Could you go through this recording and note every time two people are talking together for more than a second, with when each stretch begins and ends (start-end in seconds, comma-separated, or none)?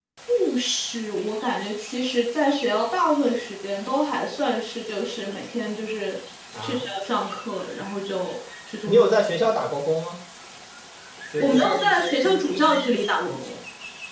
11.4-12.9